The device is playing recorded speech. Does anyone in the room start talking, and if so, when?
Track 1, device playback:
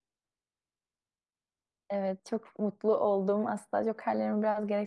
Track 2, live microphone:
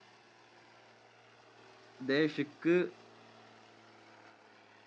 2.1 s

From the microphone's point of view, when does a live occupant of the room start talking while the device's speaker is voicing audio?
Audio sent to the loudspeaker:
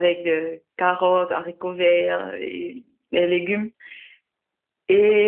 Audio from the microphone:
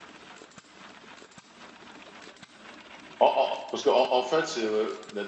3.2 s

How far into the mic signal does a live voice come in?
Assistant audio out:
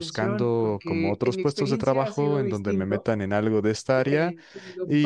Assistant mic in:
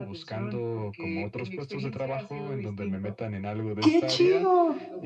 3.8 s

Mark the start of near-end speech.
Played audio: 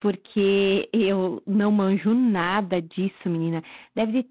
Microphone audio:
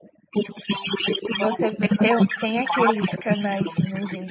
1.4 s

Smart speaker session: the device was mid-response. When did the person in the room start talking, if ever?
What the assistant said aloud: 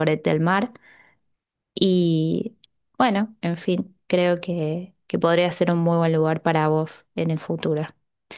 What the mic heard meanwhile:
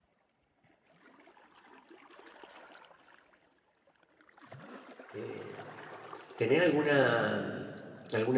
5.1 s

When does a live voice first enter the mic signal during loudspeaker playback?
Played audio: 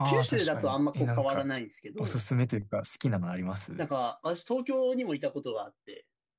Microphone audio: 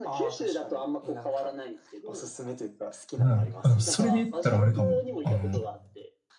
3.2 s

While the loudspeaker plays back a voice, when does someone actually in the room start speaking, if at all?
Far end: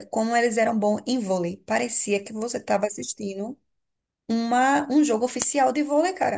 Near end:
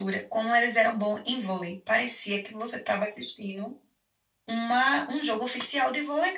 none

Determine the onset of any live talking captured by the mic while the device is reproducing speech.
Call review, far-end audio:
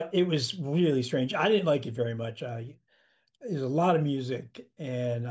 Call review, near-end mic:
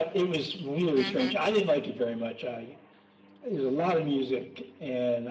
0.9 s

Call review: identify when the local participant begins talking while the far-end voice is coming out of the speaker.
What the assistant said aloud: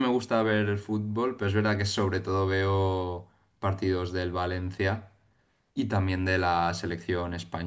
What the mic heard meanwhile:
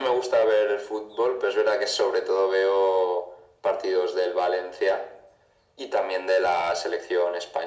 none

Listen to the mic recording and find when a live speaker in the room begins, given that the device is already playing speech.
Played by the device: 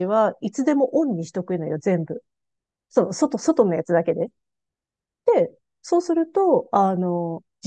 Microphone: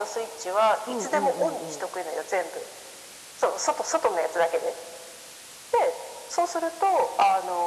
0.9 s

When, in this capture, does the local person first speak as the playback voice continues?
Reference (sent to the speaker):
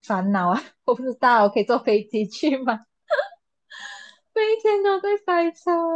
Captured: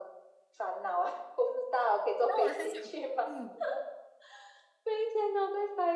2.2 s

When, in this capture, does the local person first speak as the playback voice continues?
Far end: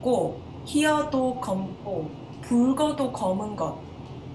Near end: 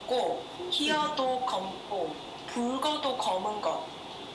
0.5 s

